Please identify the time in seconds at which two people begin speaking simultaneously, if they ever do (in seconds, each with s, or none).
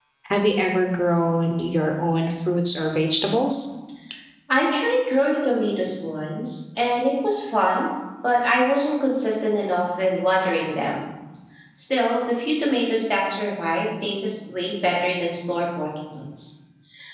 none